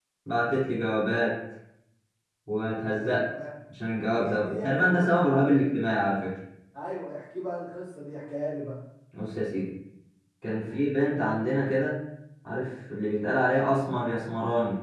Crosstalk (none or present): present